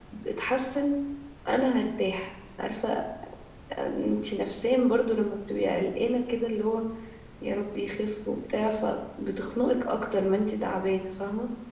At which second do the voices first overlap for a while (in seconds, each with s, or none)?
none